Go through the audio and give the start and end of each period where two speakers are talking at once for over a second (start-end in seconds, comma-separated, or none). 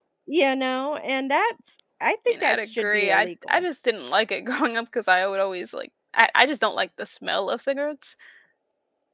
2.4-3.6